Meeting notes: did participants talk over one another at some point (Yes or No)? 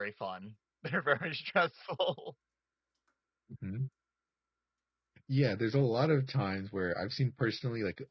No